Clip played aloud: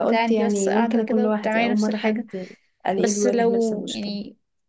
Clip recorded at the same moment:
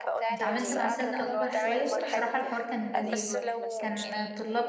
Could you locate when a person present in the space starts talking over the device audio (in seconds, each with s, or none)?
0.3 s